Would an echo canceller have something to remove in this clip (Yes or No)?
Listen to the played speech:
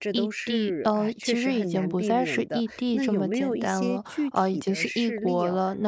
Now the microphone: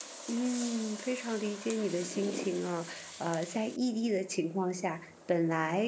No